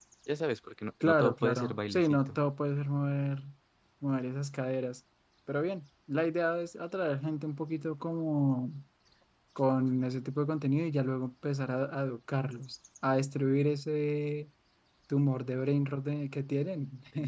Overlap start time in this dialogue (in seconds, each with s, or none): 1.0 s